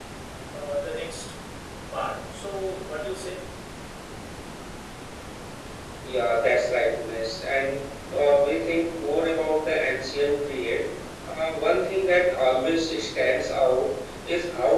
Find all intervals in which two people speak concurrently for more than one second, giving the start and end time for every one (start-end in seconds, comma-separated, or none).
none